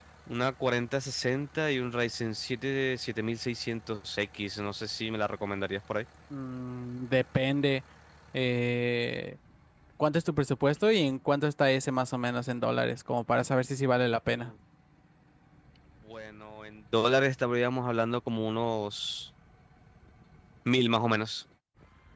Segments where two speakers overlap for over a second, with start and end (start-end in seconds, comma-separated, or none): none